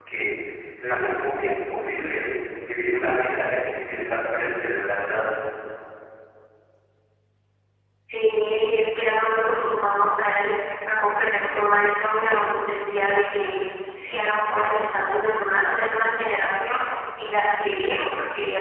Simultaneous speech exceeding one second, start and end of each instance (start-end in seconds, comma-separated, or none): none